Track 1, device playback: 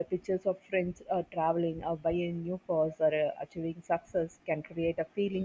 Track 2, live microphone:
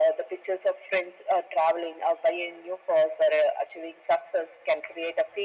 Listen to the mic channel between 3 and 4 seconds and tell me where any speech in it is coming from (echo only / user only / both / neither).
echo only